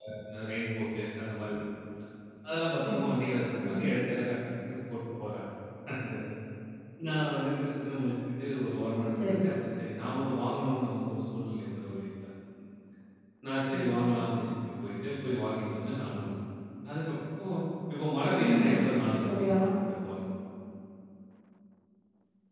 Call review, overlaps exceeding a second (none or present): present